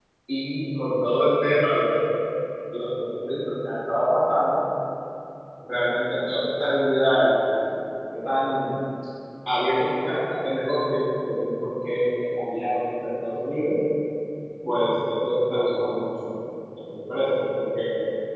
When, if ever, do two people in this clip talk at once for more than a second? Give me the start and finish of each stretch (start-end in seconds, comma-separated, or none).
none